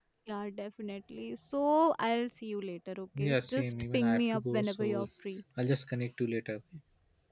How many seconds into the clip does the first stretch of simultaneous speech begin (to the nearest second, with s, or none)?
3 s